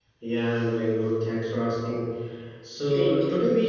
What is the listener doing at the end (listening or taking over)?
listening